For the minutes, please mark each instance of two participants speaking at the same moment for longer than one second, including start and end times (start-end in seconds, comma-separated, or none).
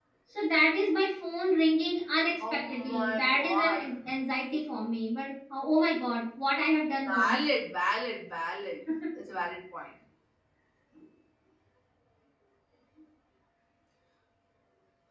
2.4-3.8